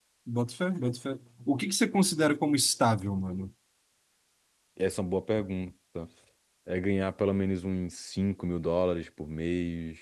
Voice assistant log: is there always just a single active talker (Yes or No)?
Yes